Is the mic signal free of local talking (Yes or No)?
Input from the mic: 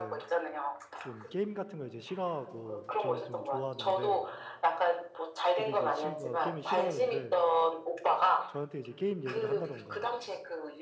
No